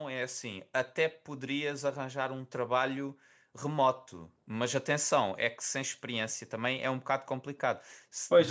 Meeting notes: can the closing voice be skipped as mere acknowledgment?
No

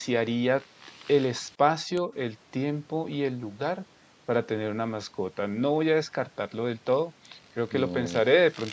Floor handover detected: No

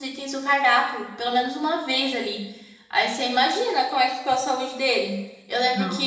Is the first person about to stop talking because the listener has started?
No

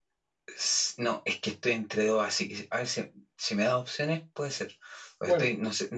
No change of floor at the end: Yes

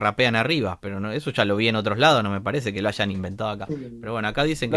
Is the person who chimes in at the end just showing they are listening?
No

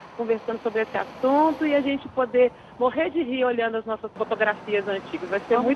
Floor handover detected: Yes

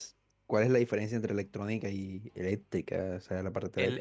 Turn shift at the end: Yes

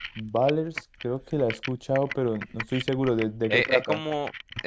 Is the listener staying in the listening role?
No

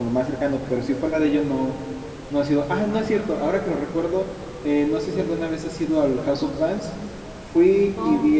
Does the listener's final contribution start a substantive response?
No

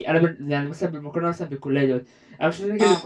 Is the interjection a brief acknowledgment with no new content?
Yes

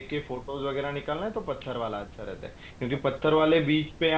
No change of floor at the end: Yes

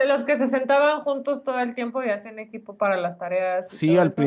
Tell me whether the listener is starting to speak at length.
Yes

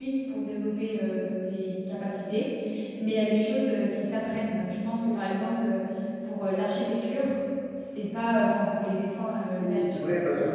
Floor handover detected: Yes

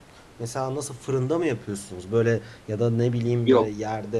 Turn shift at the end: No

